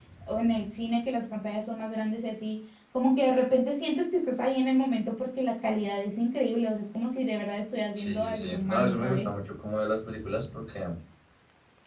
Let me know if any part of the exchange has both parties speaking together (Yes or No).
Yes